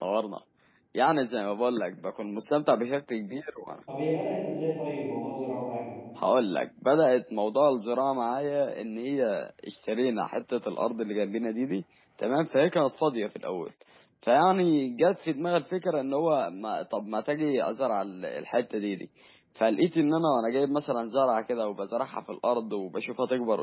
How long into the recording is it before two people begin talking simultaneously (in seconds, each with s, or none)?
none